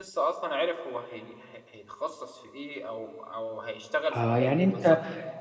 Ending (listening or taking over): taking over